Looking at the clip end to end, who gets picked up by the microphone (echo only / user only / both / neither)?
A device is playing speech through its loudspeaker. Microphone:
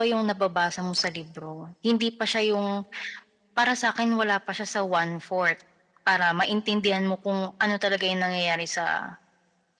echo only